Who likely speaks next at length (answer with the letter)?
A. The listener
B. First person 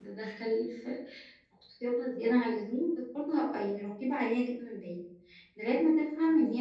B